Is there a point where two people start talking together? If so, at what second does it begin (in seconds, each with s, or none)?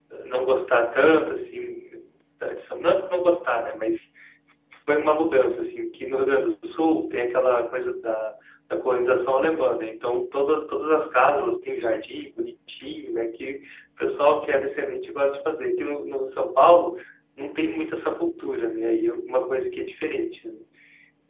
none